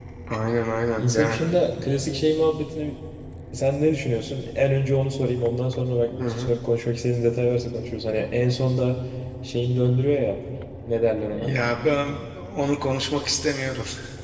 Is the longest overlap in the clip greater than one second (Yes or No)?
No